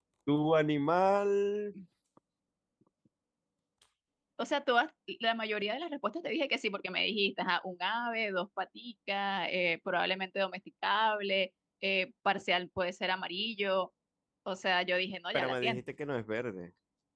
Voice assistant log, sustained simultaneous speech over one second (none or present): none